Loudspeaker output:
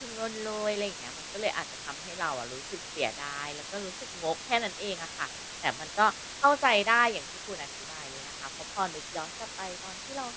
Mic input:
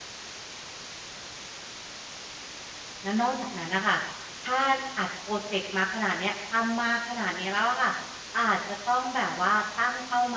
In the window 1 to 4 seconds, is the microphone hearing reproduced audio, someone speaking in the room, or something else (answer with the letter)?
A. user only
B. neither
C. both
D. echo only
A